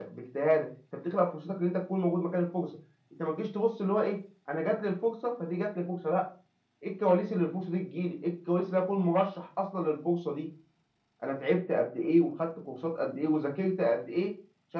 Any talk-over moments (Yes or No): No